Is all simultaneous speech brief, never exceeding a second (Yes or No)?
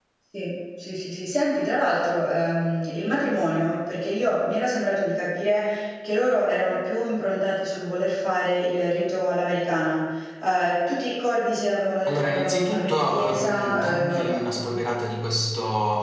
No